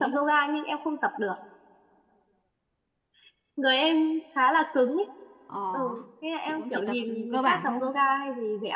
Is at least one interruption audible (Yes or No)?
Yes